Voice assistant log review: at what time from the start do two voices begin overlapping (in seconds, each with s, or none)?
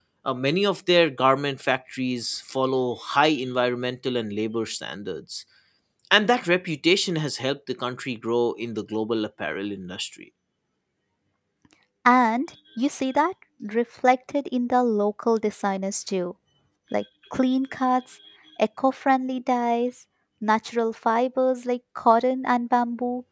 none